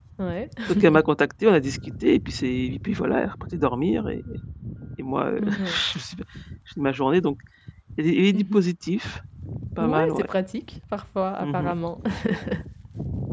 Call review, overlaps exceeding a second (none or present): none